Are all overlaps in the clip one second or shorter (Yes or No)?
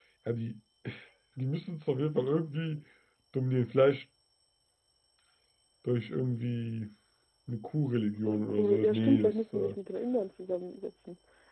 No